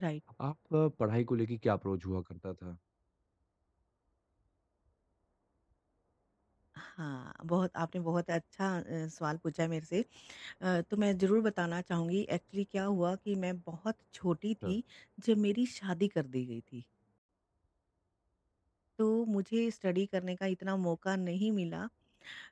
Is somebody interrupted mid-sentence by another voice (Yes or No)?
No